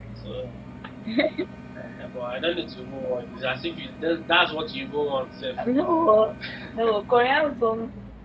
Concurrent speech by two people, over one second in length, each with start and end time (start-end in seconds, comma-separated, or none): none